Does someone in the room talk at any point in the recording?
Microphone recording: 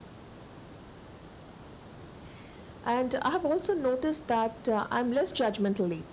Yes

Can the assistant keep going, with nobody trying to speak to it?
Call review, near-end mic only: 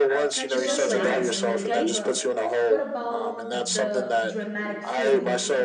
No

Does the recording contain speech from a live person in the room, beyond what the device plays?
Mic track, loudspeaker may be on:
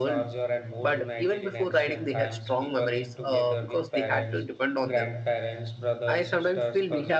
No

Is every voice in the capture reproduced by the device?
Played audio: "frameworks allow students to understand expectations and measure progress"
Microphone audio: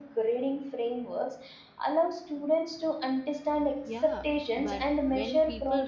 No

